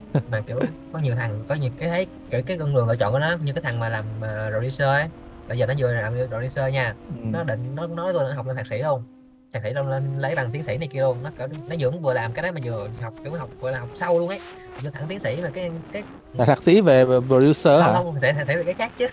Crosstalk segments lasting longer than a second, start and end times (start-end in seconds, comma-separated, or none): none